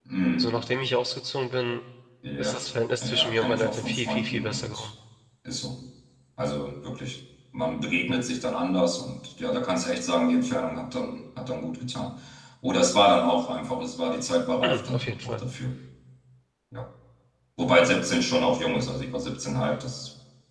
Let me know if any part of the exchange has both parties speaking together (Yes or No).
Yes